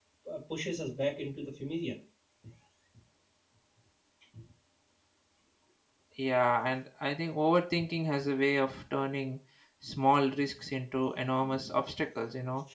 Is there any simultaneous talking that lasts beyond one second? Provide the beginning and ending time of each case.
none

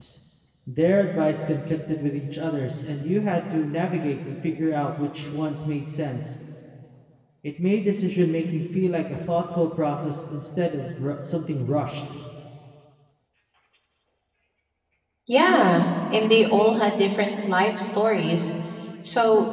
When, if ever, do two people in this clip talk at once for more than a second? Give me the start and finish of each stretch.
none

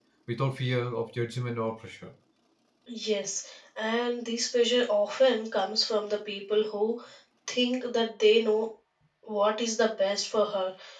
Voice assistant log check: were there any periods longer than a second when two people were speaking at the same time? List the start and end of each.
none

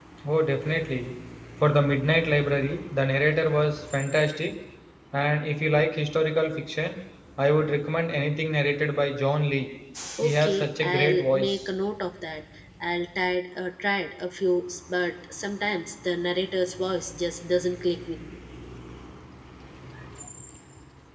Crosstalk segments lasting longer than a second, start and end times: 10.2-11.6

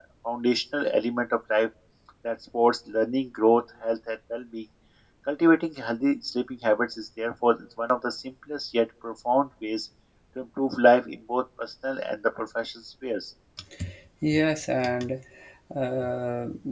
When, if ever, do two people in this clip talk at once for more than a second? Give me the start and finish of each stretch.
none

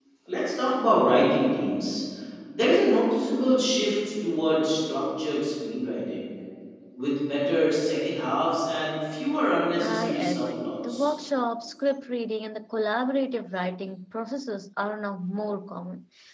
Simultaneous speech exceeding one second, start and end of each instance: 9.8-11.1

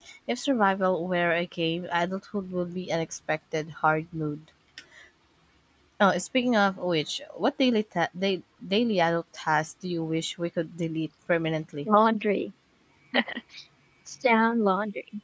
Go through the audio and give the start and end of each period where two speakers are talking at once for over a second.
none

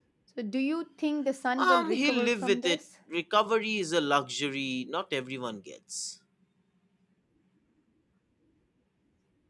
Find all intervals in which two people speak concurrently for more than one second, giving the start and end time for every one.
1.6-2.8

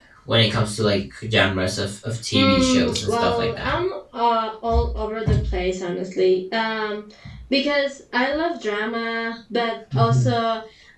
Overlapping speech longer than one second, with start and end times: 2.3-3.8

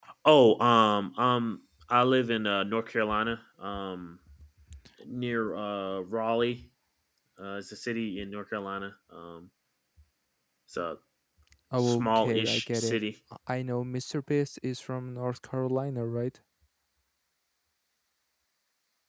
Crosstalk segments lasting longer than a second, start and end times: 11.8-13.0

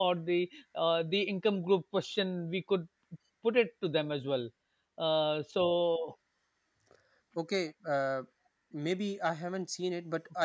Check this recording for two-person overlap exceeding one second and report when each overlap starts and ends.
none

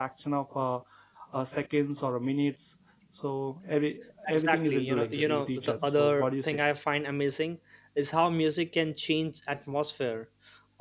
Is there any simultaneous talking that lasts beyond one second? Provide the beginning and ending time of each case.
4.3-6.6

